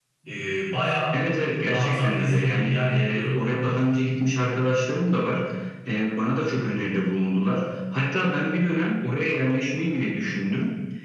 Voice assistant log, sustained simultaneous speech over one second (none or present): present